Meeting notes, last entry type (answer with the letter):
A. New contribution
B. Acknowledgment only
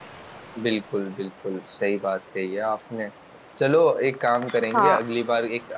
B